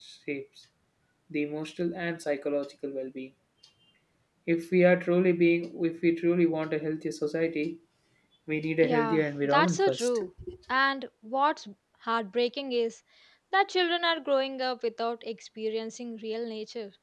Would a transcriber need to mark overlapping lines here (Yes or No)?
Yes